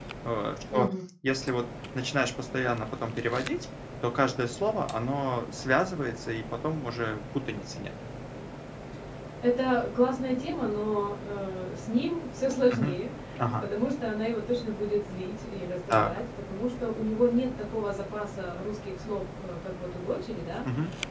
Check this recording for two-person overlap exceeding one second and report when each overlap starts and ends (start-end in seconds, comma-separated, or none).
none